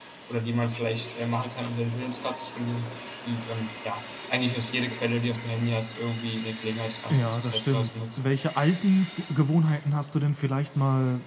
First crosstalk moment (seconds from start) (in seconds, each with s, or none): 7.1 s